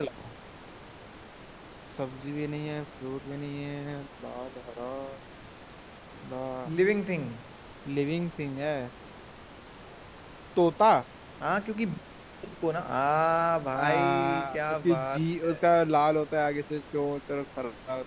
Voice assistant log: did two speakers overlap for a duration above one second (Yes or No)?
Yes